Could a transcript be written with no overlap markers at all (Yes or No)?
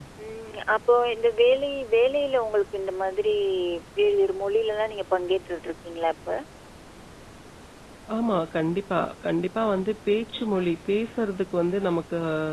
Yes